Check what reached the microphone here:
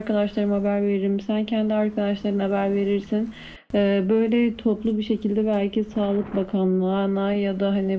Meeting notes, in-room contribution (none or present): none